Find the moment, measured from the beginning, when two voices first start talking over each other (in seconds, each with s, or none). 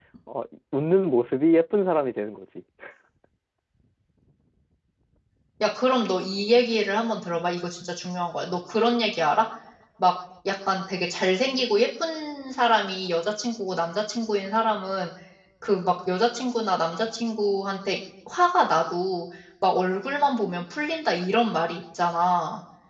none